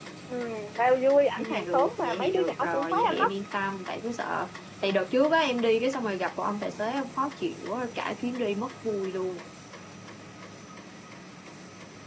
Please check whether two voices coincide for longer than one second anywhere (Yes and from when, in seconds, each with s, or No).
Yes, from 1.4 s